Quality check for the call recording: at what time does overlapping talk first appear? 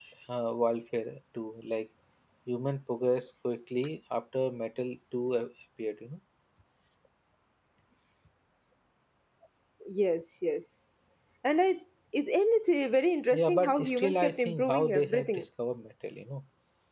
13.3 s

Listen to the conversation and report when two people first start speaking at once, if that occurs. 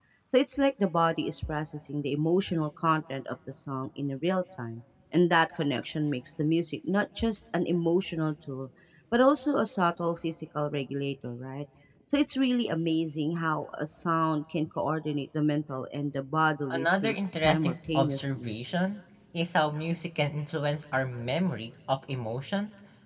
16.7 s

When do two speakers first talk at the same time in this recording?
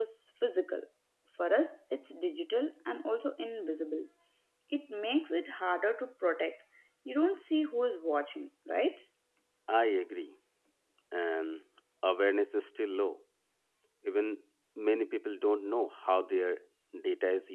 none

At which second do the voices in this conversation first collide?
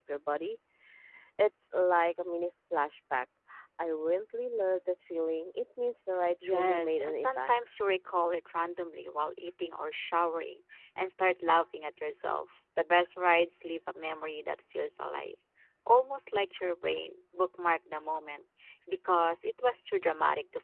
6.4 s

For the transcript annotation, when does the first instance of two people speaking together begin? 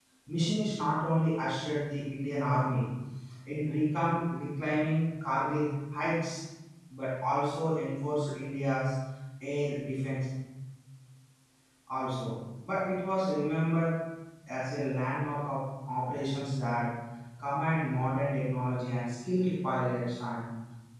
none

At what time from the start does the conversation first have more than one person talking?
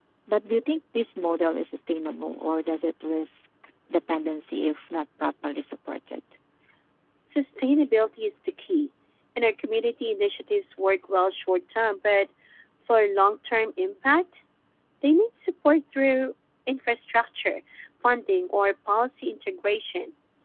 none

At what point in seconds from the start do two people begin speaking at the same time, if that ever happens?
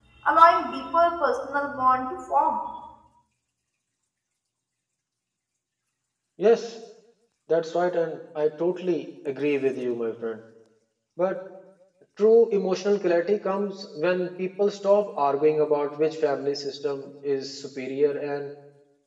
none

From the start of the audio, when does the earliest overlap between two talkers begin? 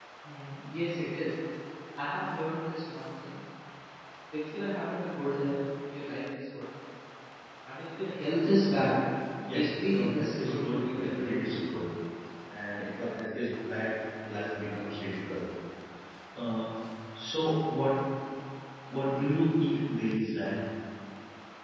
9.5 s

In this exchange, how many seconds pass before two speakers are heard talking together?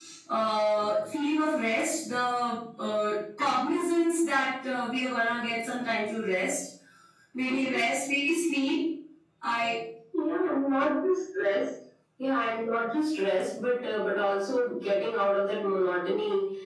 none

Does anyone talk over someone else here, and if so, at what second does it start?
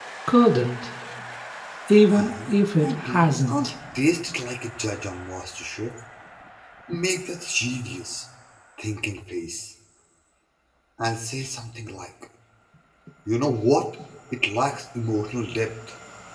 2.1 s

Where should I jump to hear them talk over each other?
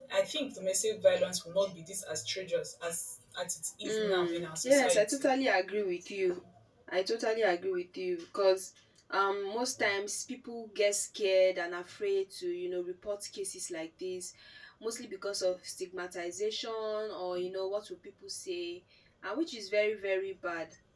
3.8 s

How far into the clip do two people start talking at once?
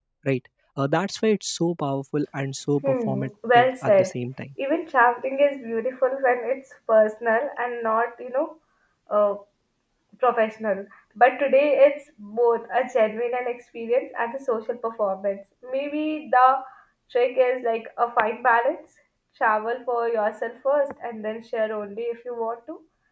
2.8 s

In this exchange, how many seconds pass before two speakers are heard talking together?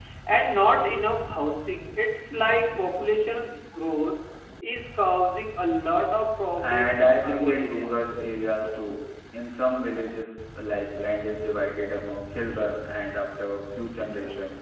6.6 s

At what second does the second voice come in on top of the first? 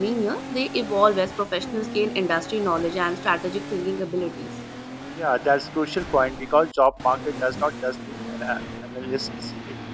none

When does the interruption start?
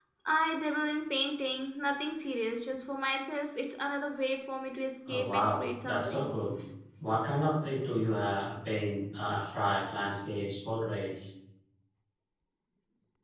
5.1 s

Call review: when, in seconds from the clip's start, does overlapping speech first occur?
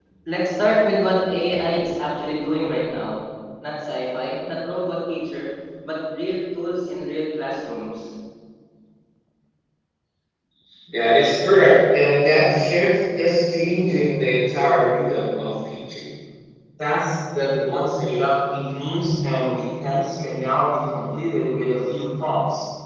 none

